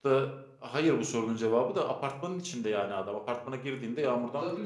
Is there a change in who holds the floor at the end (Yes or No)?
Yes